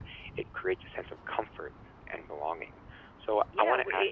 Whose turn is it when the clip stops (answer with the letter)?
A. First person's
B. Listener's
B